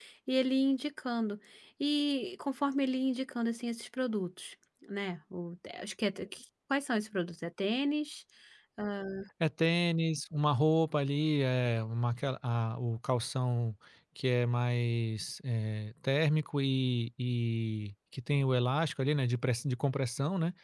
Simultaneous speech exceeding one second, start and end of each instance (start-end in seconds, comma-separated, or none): none